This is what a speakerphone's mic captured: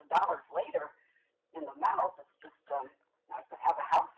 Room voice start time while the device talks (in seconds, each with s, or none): none